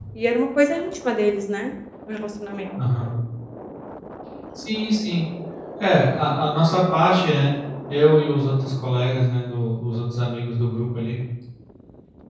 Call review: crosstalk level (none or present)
none